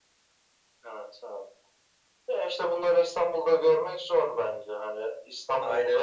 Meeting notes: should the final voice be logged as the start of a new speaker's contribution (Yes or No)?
No